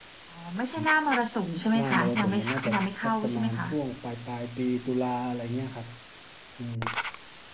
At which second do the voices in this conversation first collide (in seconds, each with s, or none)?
1.7 s